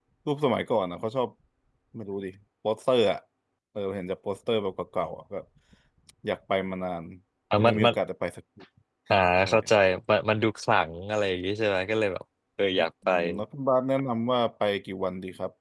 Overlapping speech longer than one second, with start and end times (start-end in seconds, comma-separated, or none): none